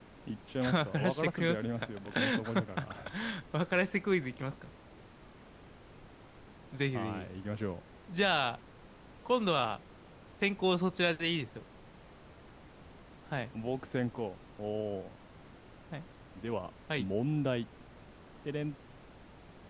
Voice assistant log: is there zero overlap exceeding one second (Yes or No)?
No